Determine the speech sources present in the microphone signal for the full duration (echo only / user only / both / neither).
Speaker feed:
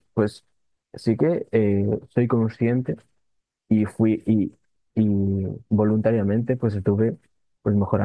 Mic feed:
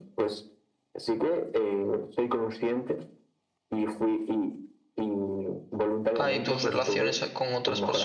both